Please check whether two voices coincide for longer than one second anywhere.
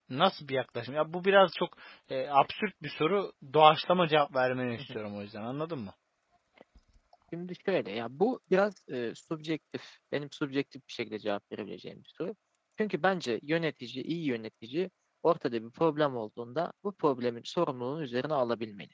No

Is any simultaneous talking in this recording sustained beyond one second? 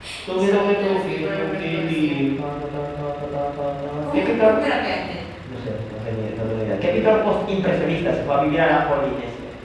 Yes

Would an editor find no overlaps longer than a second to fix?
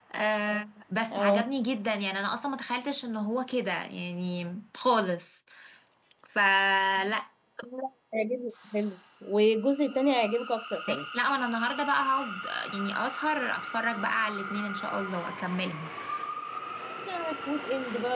Yes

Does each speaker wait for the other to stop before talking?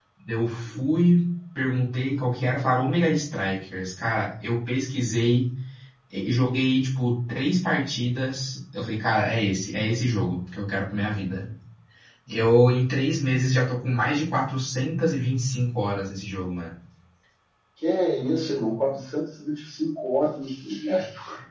Yes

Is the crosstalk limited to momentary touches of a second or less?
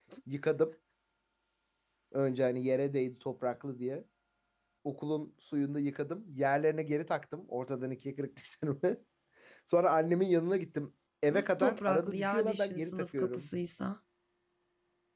No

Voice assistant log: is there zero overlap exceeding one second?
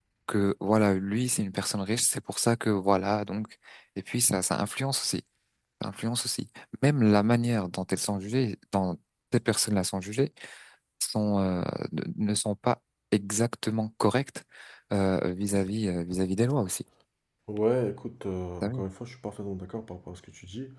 Yes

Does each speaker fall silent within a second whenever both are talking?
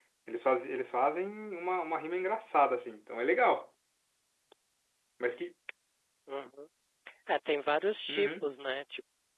Yes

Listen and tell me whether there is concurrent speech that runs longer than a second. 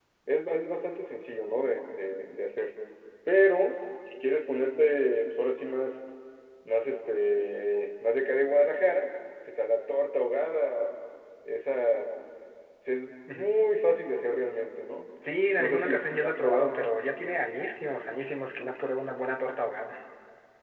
Yes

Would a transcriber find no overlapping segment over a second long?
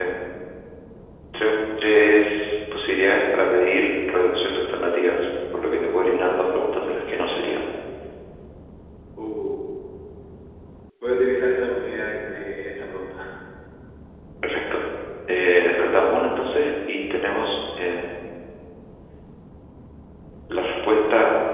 Yes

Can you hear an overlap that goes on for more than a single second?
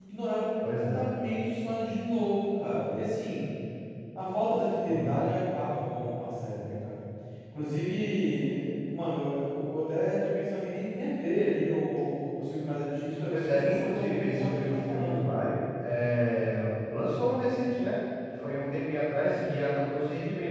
Yes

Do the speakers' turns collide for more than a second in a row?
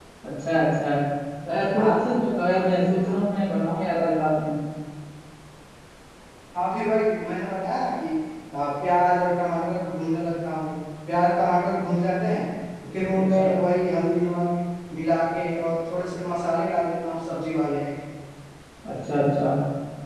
No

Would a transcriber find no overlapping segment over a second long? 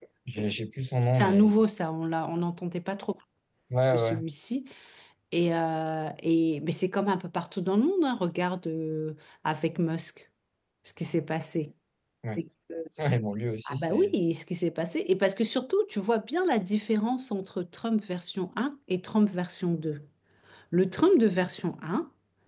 Yes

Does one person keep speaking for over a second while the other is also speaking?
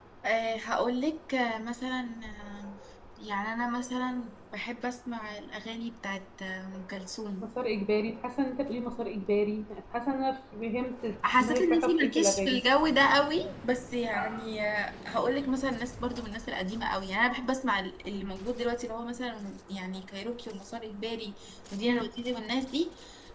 Yes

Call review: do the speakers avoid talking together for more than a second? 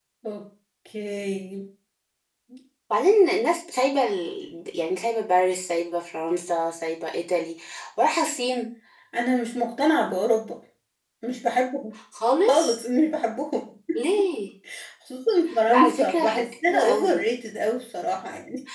No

